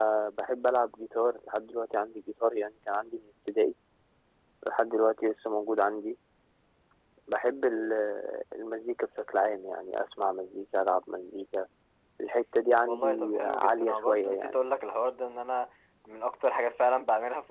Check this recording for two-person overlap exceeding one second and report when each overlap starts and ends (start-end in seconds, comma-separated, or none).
12.8-14.6